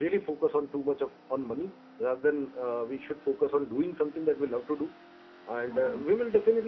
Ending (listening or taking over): listening